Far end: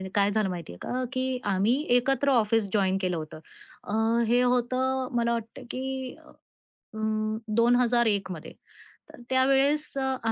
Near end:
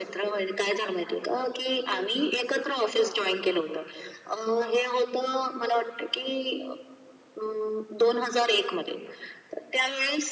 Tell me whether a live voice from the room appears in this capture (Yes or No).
No